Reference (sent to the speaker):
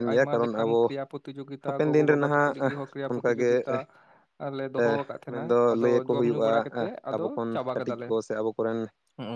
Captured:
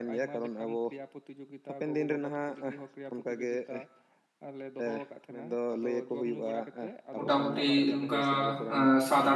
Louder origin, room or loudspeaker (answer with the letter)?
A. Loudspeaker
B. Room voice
B